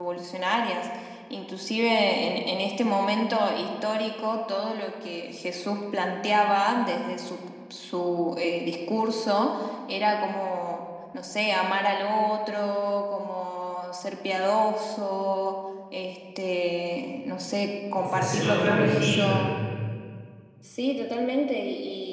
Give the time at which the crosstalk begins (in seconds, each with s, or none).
18.0 s